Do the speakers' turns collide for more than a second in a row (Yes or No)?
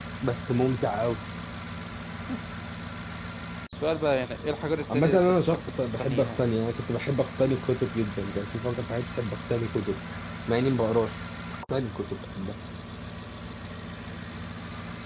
Yes